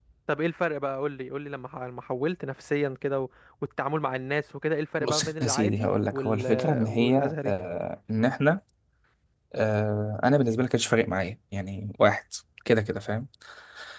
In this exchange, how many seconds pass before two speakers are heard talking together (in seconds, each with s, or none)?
5.0 s